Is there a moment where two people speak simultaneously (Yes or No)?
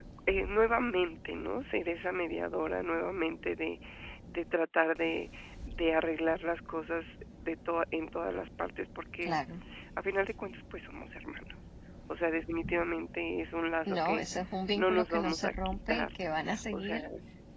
Yes